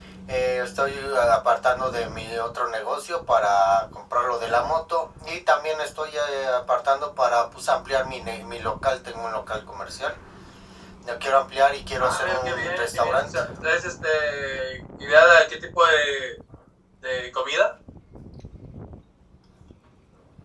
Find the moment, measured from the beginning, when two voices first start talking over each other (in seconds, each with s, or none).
12.0 s